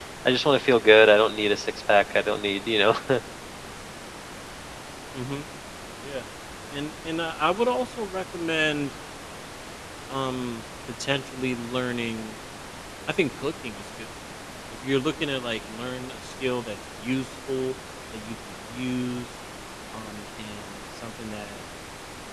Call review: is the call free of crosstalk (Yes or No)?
Yes